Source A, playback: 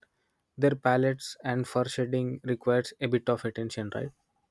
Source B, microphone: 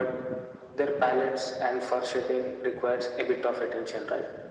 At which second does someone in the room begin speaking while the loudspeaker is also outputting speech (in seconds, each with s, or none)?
none